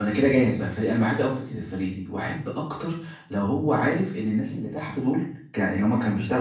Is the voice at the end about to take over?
No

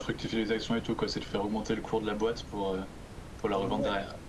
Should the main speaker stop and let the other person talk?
Yes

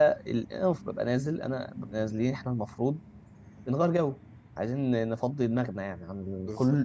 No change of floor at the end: Yes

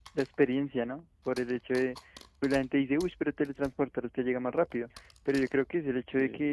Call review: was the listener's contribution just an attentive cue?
Yes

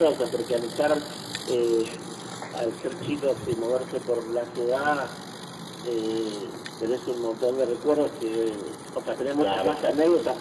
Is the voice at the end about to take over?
No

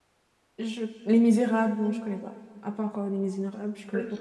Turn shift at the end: Yes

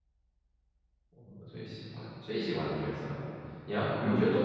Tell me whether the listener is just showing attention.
Yes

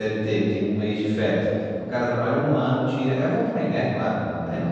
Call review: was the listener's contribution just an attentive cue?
Yes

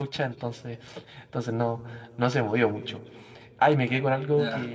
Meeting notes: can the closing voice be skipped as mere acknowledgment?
Yes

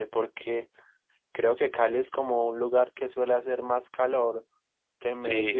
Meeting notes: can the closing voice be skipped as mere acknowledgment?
No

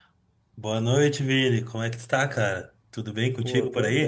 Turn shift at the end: Yes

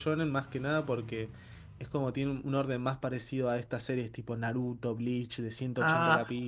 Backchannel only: No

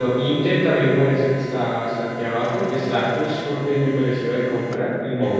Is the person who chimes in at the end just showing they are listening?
No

